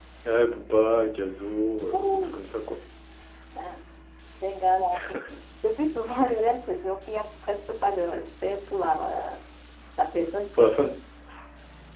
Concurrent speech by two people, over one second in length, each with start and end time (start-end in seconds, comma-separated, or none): none